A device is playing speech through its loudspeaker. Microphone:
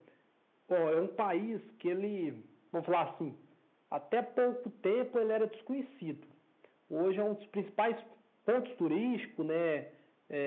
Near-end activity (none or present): none